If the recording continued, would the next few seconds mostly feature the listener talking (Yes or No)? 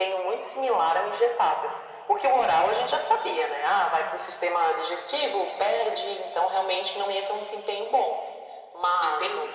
No